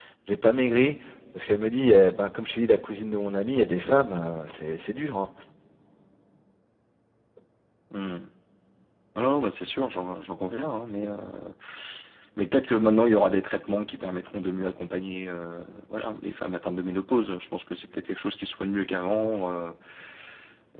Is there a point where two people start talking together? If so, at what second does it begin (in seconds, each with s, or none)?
none